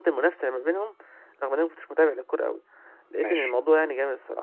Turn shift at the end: No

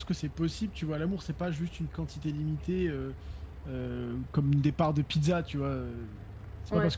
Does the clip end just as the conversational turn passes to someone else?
No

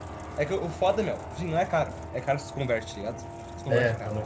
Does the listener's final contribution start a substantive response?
Yes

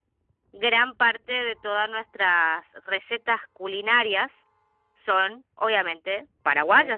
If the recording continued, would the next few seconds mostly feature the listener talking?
Yes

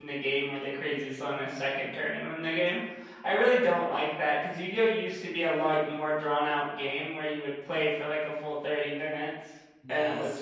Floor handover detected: Yes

